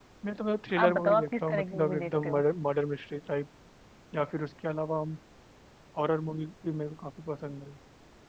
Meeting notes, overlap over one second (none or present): present